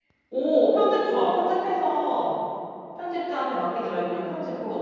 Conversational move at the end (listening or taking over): taking over